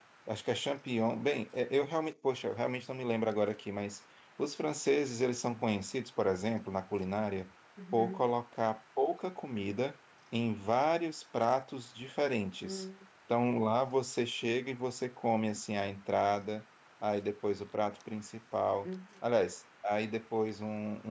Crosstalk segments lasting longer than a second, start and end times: none

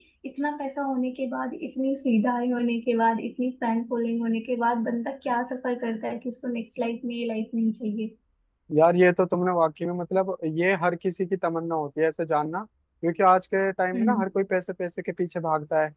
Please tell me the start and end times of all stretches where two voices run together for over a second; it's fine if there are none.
none

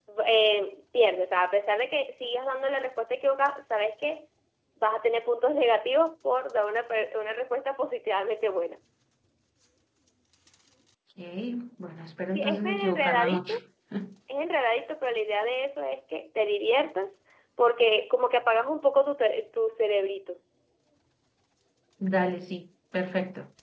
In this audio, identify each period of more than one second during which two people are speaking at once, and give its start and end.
12.3-13.5

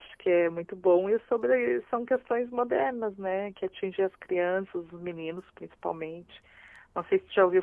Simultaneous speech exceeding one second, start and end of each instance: none

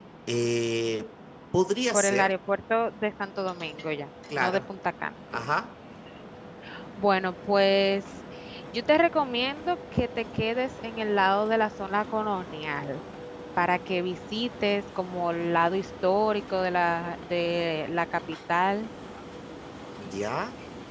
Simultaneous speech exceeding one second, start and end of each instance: none

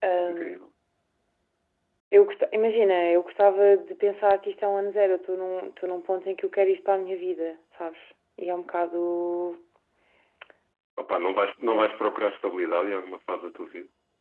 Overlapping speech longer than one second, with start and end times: none

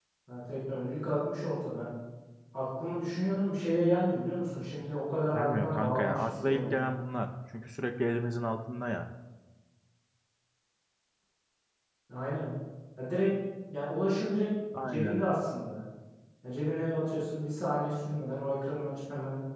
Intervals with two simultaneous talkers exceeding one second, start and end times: 5.3-6.8

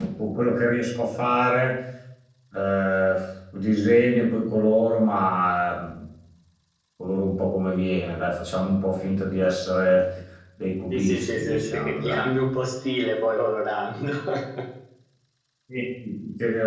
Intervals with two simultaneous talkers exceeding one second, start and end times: 10.9-12.3

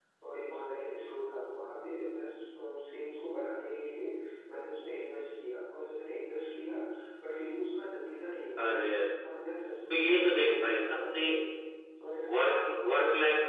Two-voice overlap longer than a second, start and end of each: 9.9-11.2

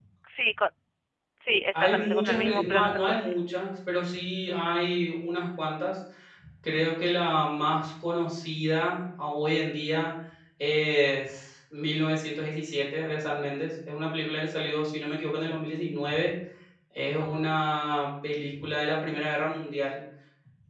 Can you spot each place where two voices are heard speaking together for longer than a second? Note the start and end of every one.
1.7-3.3

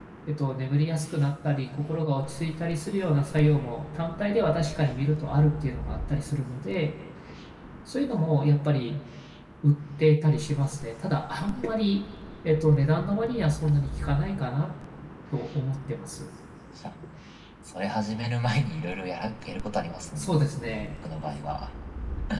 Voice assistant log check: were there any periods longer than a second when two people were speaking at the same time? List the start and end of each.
none

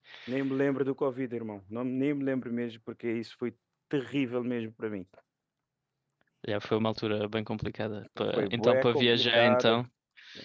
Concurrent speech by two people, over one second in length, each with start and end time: 8.3-9.8

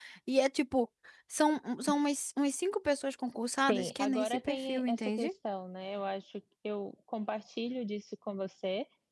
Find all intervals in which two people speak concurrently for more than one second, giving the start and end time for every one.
3.7-5.3

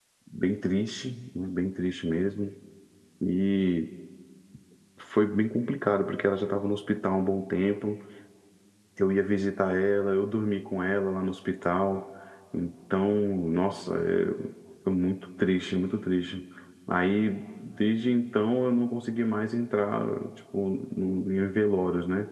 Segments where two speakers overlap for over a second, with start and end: none

